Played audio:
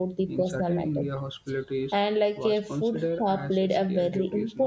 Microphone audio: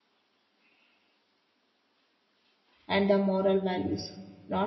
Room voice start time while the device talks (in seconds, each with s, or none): 2.9 s